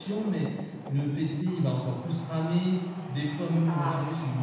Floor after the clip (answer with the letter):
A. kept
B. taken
A